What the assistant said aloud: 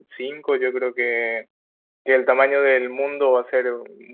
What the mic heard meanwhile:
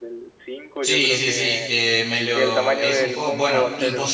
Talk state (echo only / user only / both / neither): both